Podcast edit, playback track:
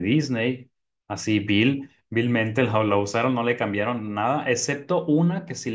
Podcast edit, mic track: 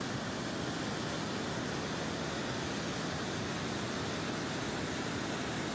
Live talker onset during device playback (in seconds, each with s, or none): none